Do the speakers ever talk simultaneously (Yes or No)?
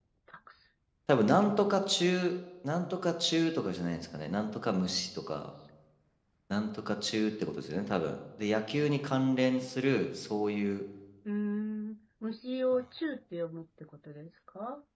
No